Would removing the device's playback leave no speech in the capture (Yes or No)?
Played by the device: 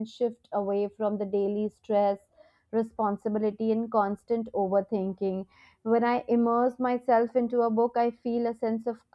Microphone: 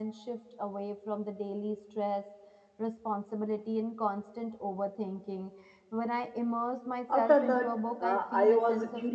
No